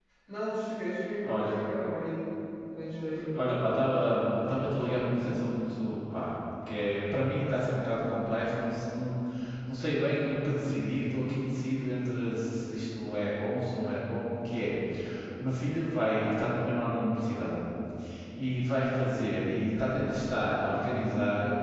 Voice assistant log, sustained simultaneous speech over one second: none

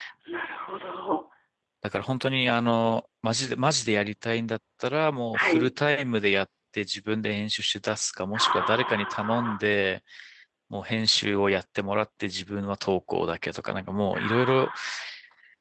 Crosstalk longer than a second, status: present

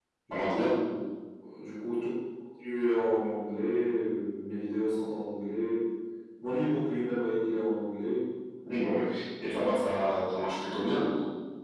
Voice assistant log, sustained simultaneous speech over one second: none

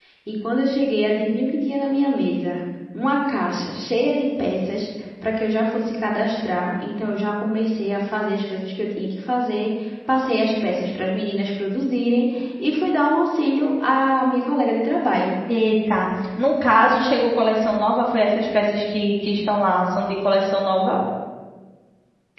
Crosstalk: none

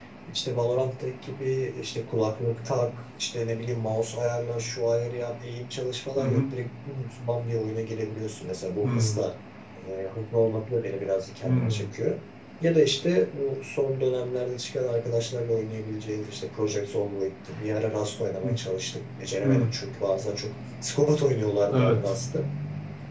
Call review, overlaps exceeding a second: none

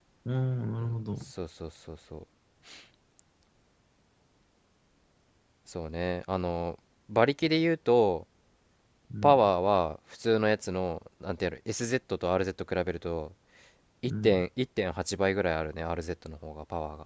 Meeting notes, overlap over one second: none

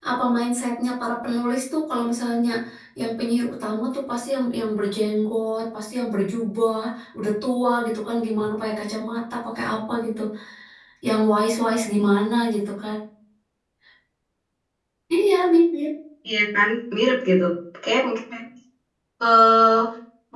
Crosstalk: none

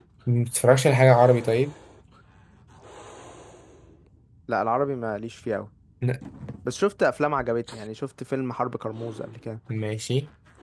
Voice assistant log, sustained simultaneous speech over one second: none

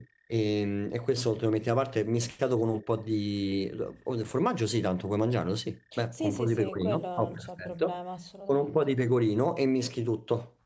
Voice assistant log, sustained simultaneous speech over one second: present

